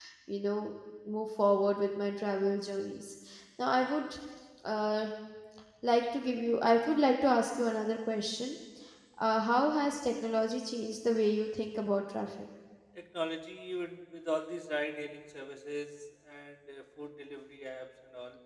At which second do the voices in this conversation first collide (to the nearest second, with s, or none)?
none